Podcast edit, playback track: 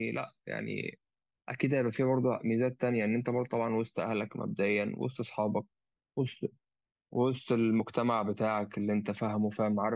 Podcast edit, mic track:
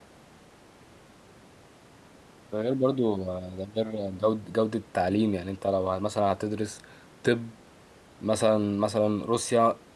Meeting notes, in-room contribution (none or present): present